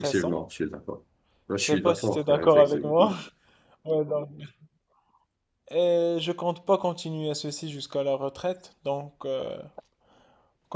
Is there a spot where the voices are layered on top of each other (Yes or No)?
Yes